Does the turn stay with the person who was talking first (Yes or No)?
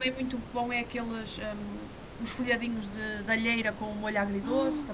No